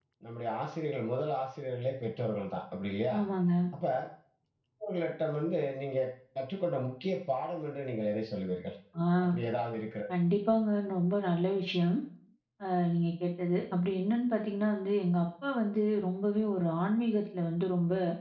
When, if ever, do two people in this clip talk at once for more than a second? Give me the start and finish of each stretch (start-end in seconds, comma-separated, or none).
none